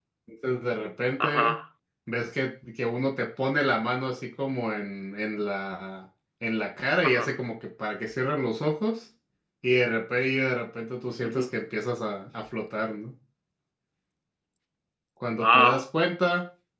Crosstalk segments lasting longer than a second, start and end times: none

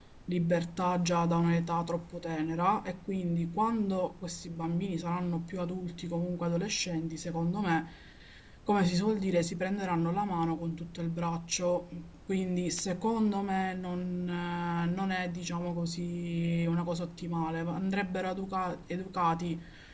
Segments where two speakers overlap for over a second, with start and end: none

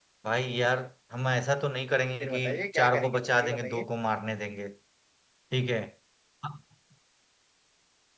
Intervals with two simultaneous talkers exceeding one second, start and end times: 2.2-3.9

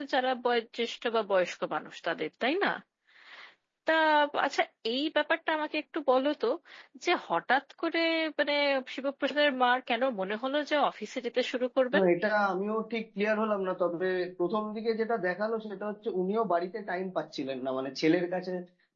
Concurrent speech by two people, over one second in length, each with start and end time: none

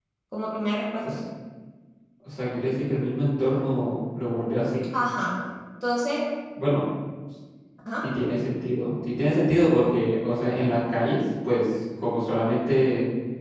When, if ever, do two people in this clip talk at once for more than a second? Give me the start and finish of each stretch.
none

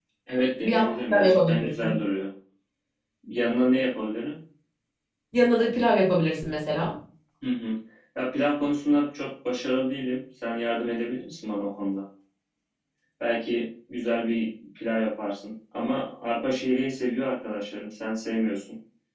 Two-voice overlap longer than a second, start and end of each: 0.6-2.0

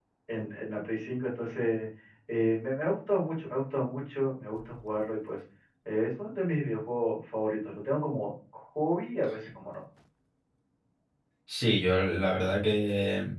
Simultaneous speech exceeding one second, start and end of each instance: none

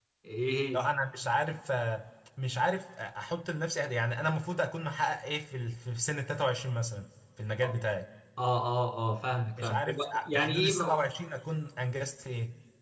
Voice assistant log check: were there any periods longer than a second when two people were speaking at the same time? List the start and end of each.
9.6-11.0

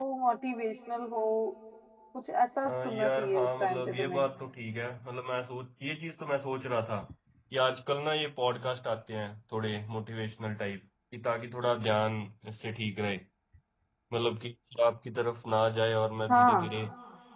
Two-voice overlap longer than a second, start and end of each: 2.6-4.3

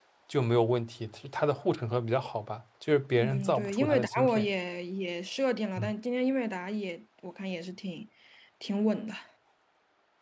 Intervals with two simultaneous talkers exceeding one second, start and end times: 3.2-4.5

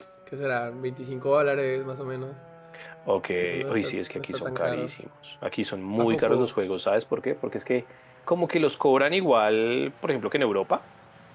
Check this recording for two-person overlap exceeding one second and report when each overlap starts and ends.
3.7-4.9

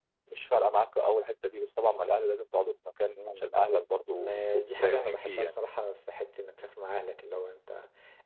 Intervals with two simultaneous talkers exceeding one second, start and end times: 4.2-5.5

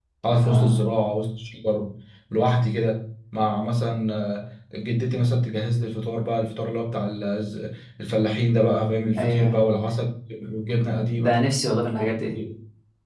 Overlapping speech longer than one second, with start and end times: none

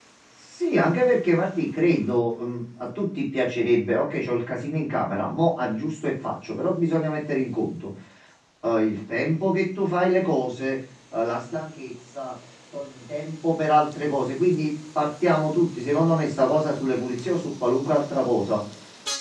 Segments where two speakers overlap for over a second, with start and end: none

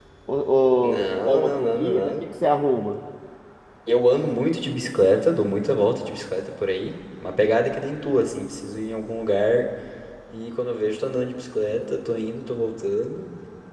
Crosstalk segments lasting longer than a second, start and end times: 0.8-2.1

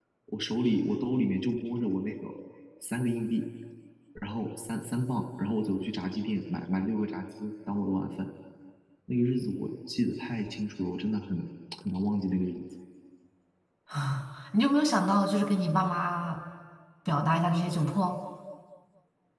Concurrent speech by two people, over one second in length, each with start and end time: none

